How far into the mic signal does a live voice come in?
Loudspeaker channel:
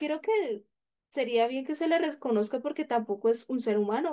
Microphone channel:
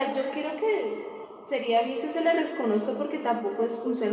none

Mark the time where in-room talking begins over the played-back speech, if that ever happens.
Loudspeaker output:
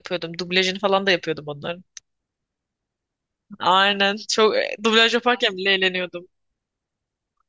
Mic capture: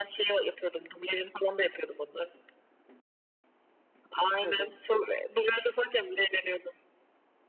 4.4 s

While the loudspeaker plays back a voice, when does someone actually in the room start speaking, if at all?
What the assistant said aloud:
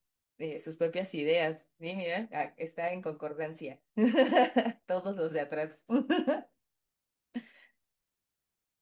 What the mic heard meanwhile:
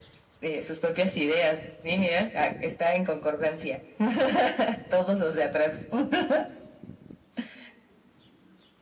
none

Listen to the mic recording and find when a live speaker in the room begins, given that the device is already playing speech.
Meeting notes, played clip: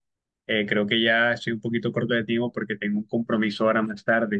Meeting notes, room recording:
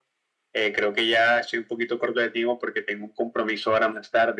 none

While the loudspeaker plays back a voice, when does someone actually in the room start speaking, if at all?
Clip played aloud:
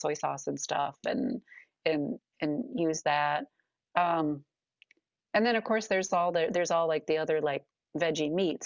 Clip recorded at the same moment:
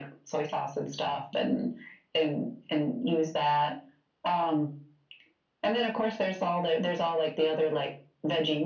none

